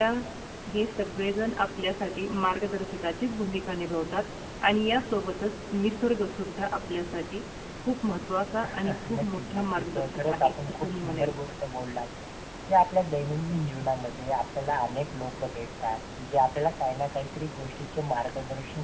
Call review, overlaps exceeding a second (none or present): present